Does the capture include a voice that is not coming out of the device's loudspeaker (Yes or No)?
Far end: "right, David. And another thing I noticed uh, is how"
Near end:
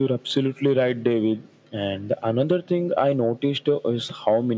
No